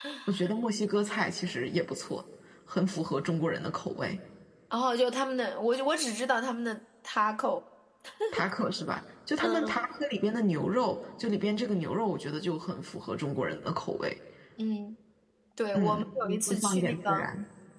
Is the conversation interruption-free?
No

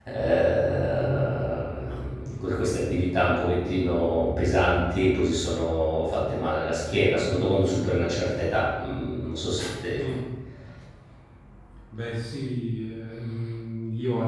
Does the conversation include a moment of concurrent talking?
No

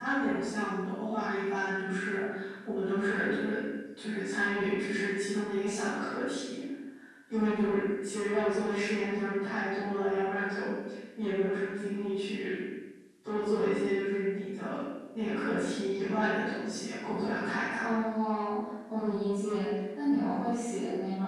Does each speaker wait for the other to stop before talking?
Yes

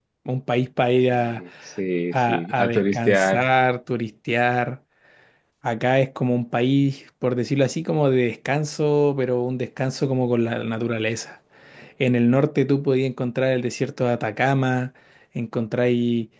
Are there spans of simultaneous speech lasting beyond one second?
Yes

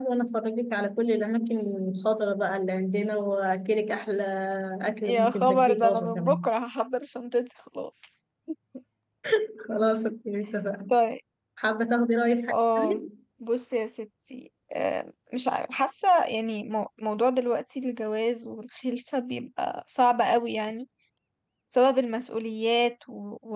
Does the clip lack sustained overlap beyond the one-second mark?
No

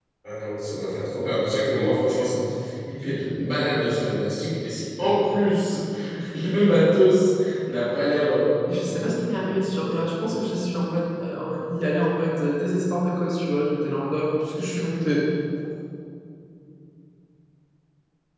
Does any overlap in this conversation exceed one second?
Yes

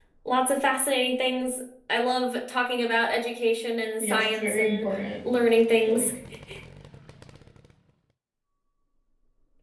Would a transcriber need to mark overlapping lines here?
Yes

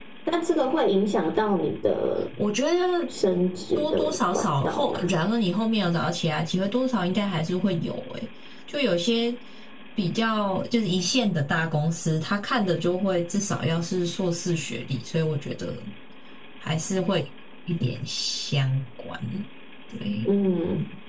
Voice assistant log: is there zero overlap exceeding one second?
No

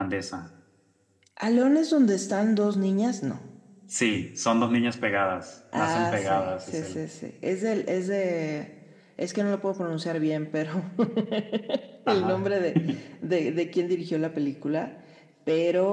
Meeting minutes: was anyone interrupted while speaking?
Yes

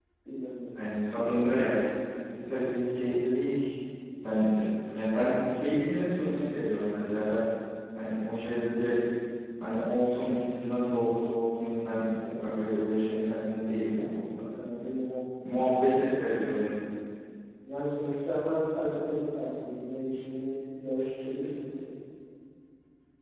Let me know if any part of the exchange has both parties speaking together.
No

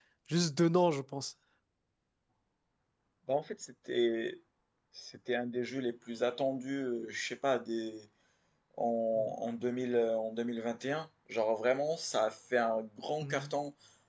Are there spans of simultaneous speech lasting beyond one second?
No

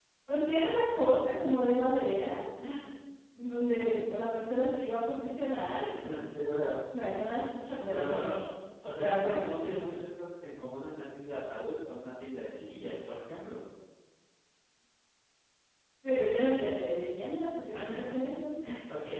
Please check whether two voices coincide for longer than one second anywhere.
No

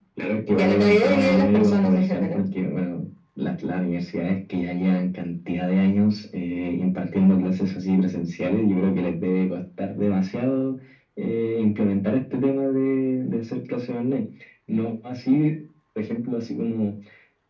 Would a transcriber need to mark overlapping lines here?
Yes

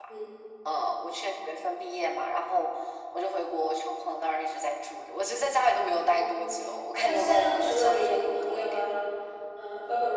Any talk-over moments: Yes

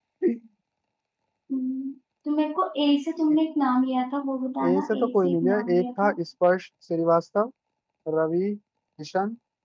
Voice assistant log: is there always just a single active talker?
No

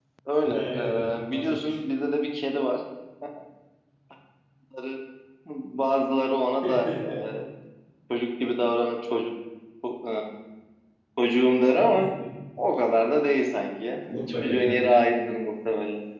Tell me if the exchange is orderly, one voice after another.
No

